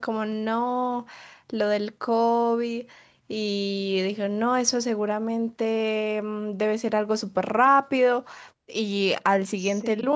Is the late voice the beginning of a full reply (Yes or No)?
No